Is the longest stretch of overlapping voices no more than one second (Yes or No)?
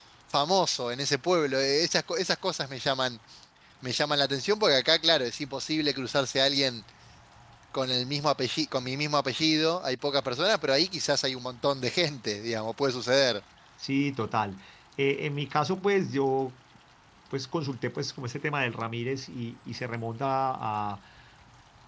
Yes